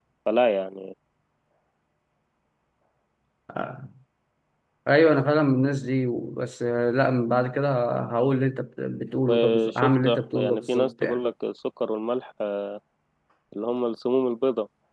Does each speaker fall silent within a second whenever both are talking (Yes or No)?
No